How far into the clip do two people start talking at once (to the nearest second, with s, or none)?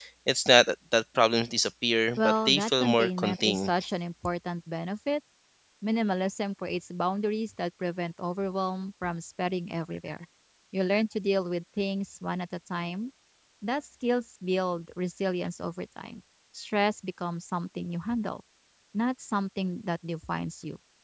2 s